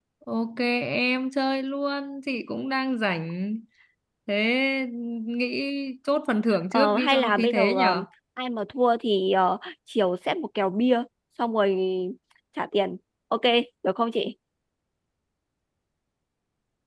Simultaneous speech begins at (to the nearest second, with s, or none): 7 s